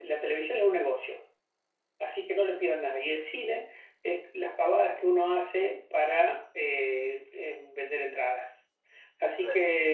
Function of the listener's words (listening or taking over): listening